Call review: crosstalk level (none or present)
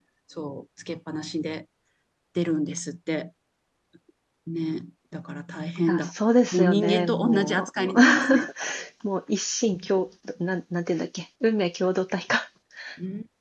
present